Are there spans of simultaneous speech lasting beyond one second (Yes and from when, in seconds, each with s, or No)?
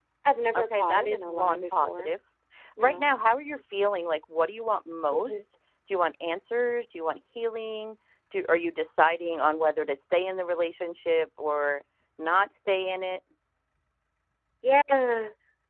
Yes, from 0.6 s